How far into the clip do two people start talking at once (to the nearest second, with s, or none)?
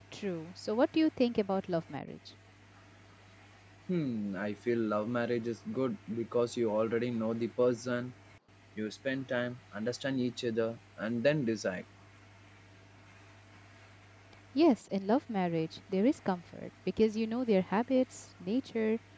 none